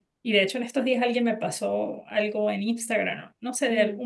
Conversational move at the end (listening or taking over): listening